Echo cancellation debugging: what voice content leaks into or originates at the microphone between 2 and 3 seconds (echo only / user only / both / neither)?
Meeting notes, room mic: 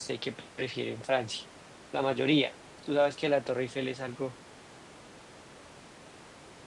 user only